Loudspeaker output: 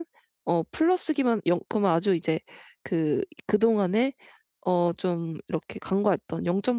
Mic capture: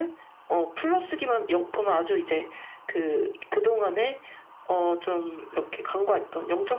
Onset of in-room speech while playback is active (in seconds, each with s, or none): none